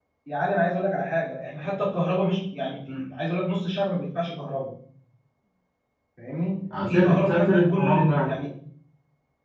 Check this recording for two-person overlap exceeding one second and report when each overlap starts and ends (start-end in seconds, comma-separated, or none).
6.7-8.3